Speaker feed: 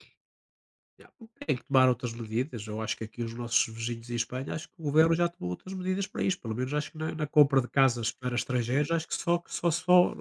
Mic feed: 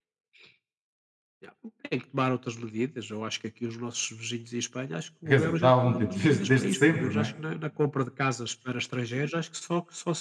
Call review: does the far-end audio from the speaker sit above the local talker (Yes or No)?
No